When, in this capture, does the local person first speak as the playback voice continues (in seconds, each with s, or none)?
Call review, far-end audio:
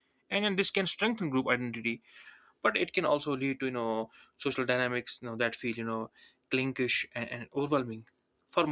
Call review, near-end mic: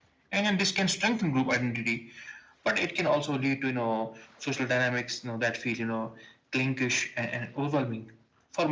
none